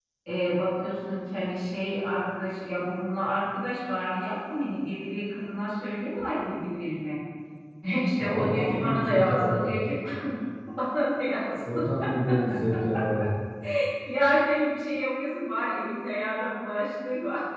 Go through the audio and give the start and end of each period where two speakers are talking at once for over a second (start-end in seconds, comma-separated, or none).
8.2-9.8